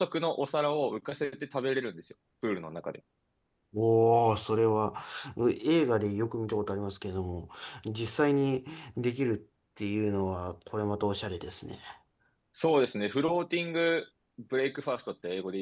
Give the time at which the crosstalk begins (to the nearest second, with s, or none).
none